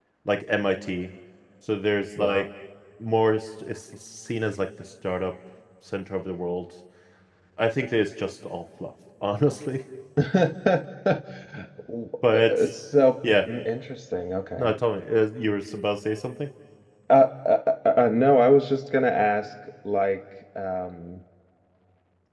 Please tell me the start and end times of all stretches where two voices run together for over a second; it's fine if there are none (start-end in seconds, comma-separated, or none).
none